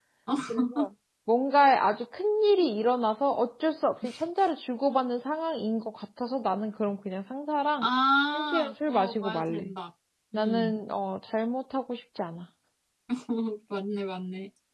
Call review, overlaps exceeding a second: present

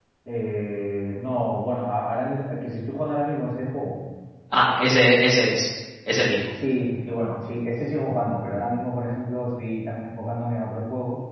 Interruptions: none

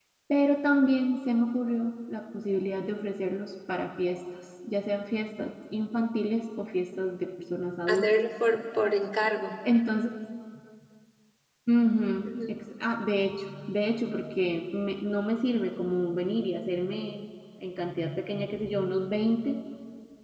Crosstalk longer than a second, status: none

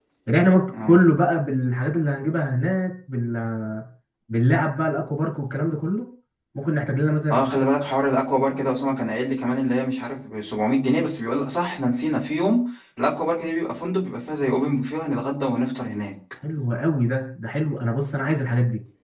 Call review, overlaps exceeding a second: none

